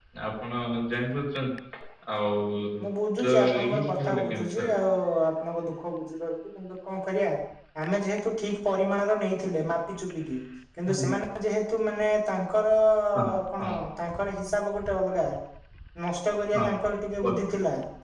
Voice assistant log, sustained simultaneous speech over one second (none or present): present